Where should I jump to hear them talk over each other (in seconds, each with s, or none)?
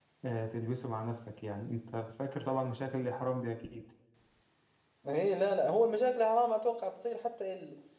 none